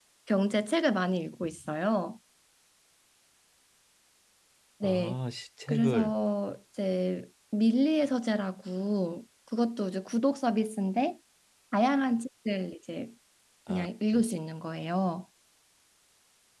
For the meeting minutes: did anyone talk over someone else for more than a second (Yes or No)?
No